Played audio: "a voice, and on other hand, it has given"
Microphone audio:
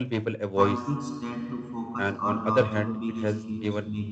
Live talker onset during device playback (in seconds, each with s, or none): 0.6 s